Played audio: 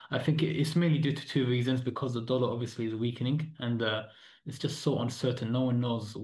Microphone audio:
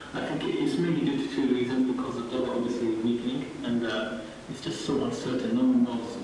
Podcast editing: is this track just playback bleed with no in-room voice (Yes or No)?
Yes